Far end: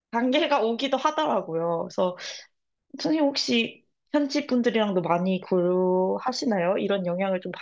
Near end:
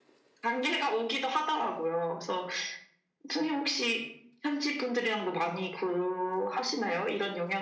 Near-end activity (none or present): none